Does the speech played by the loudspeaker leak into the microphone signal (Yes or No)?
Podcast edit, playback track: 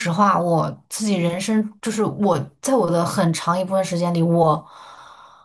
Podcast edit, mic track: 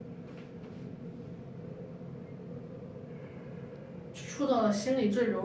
No